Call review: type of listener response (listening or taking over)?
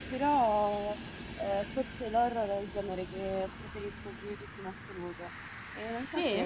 listening